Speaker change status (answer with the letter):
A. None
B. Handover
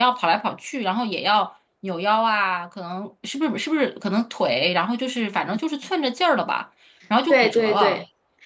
B